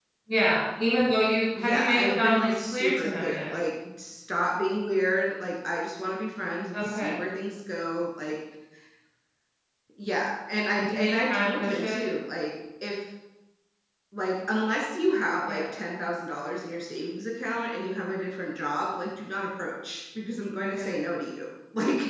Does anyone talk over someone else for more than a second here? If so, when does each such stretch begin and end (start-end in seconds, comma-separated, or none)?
1.6-3.5, 10.8-12.0